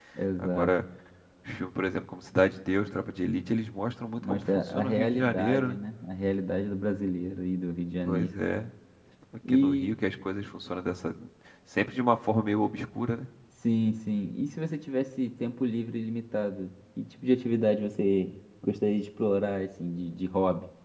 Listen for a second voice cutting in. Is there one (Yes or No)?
Yes